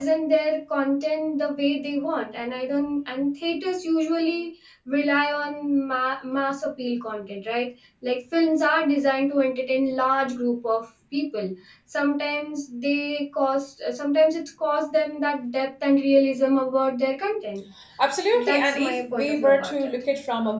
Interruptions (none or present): present